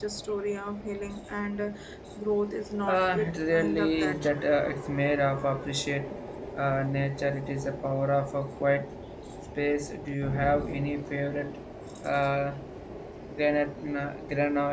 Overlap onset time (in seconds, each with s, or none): 2.9 s